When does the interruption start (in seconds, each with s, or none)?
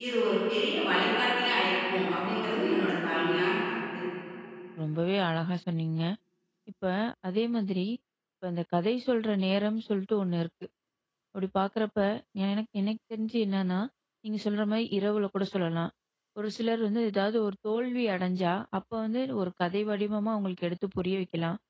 none